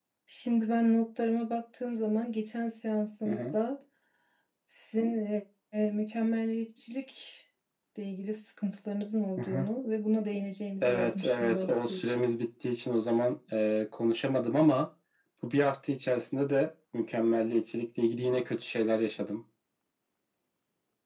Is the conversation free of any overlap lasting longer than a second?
No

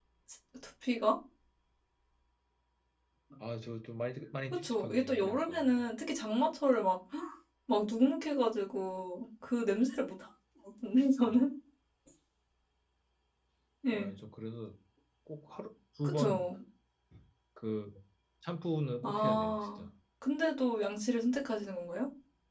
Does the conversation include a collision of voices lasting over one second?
Yes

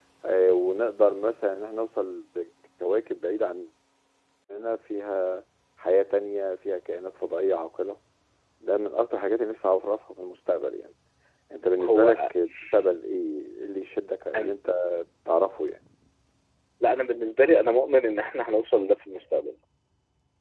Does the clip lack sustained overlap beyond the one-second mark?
Yes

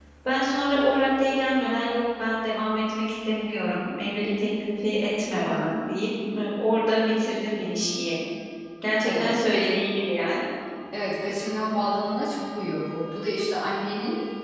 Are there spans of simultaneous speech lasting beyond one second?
No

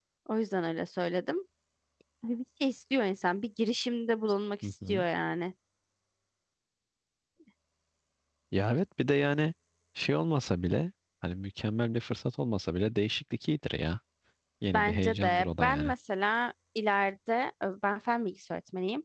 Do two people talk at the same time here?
Yes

